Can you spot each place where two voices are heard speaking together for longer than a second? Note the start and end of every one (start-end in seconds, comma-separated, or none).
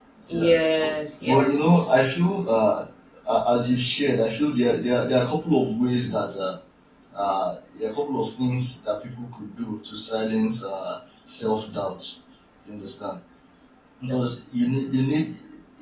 none